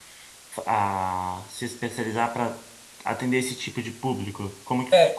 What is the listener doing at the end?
taking over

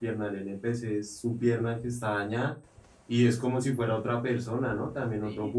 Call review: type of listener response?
taking over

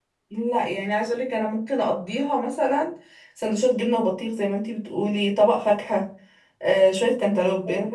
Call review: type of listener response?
listening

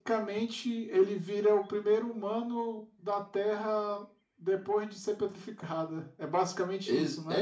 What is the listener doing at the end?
taking over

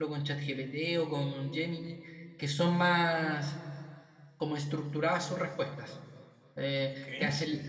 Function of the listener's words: listening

